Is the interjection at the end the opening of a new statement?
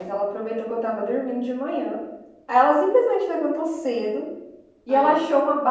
No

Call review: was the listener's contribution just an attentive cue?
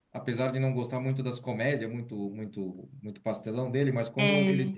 Yes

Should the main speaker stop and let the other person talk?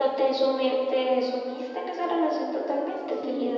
Yes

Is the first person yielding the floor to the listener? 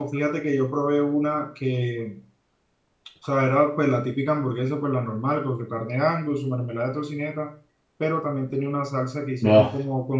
No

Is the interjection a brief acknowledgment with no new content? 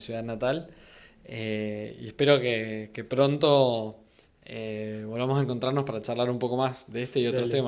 No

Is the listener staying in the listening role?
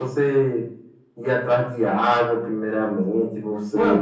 No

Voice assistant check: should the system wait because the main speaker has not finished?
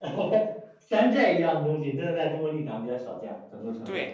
No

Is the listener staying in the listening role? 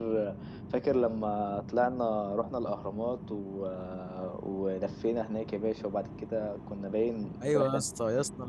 No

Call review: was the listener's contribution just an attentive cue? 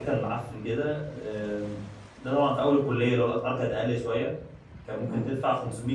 Yes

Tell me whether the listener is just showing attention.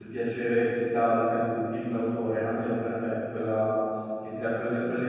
Yes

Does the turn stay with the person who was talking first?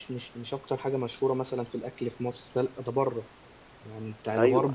Yes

